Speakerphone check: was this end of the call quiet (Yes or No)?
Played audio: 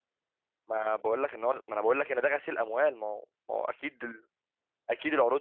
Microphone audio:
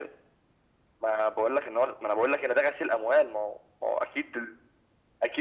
Yes